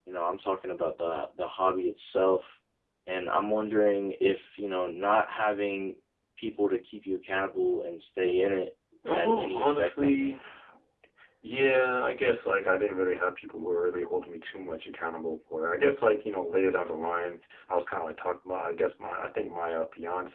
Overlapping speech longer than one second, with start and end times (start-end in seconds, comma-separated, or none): 9.1-10.3